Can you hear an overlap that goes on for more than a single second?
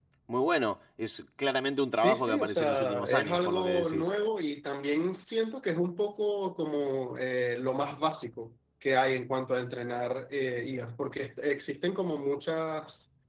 Yes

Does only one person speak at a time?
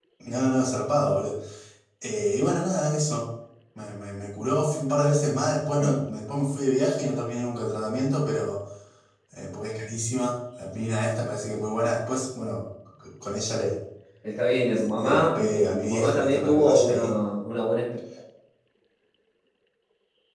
No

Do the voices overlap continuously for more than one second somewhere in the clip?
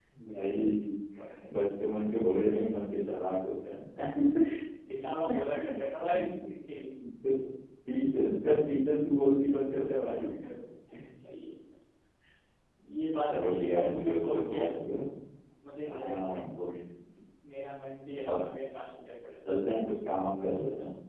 Yes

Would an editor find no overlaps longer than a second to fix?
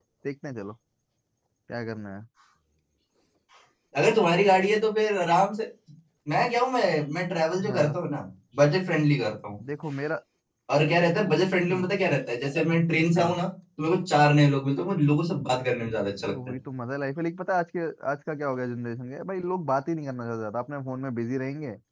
Yes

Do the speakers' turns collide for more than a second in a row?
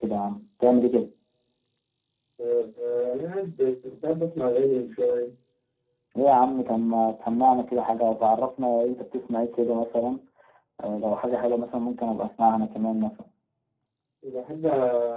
No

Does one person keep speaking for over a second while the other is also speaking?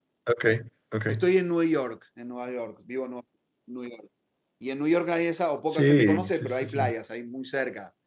Yes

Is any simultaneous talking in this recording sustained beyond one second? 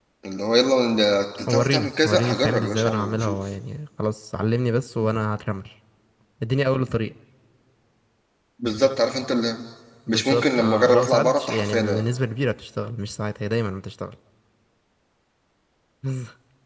Yes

